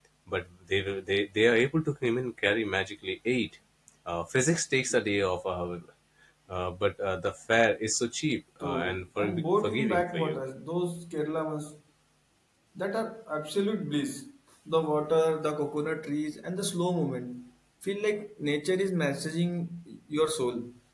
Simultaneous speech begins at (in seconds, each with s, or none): 8.6 s